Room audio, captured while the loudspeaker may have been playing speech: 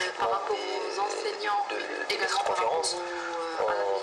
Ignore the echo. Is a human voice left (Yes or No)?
No